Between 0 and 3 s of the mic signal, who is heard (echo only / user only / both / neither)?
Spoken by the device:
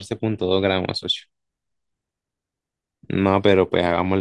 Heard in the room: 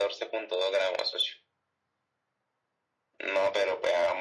echo only